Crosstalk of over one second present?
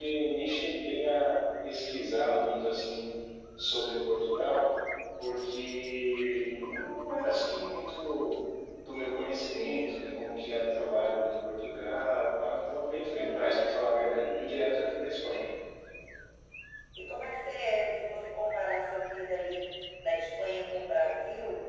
No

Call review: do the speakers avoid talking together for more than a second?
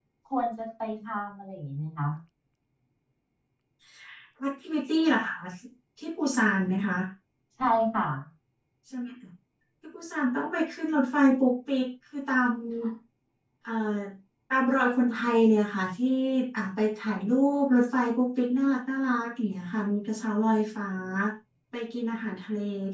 Yes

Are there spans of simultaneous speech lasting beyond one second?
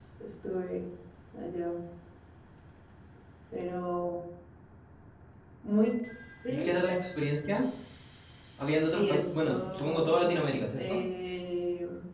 Yes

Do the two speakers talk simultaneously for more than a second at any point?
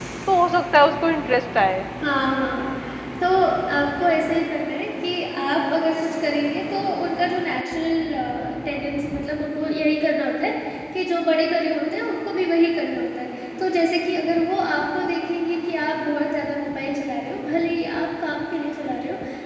No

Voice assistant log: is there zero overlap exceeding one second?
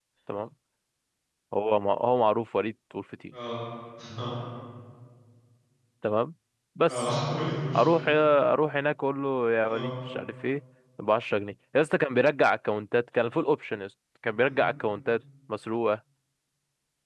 Yes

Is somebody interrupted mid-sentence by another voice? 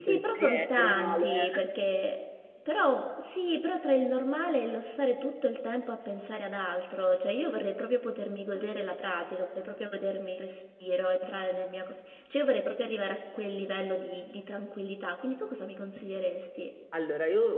Yes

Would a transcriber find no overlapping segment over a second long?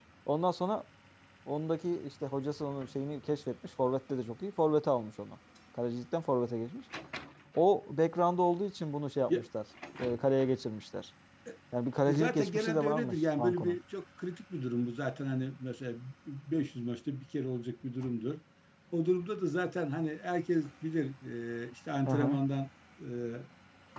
No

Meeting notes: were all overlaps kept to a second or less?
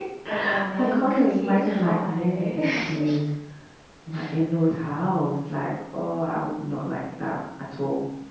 No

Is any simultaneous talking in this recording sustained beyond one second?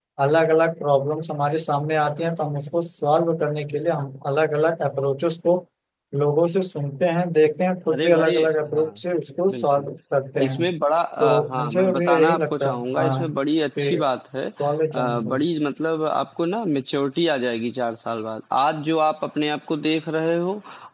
Yes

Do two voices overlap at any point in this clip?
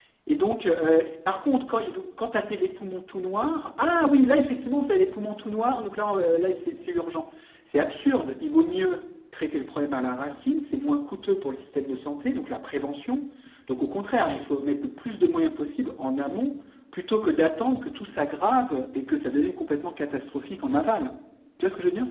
No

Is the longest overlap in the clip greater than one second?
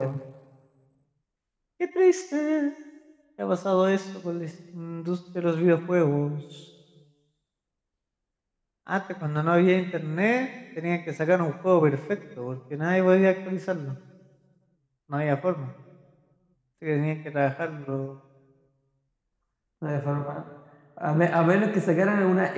No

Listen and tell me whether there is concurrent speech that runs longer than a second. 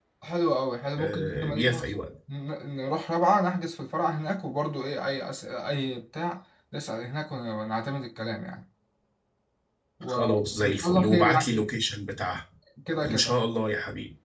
Yes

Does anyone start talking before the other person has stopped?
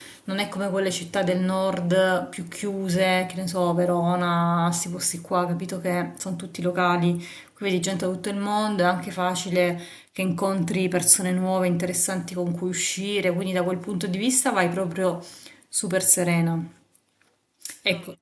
No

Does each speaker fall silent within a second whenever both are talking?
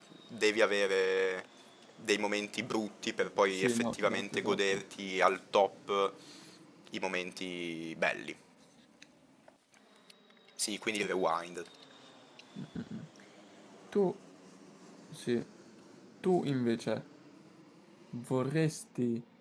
No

